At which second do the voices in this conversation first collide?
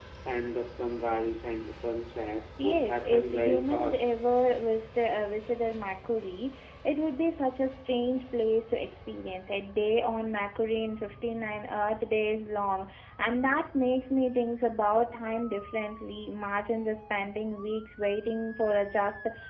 2.6 s

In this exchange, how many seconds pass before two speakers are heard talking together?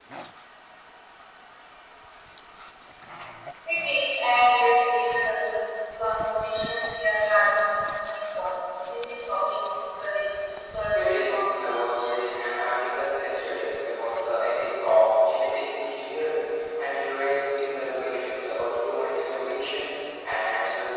10.9 s

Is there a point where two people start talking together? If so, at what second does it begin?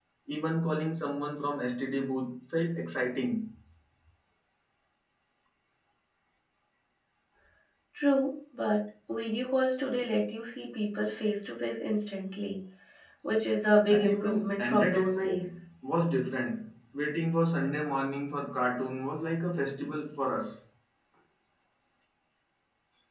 13.9 s

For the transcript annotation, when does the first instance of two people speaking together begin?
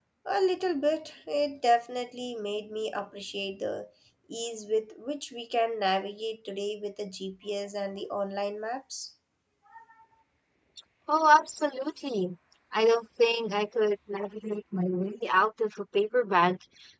none

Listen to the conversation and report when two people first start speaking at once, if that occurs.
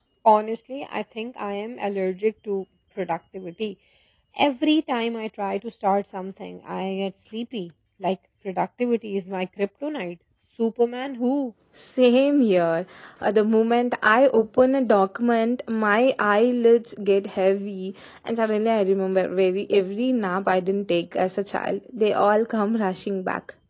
none

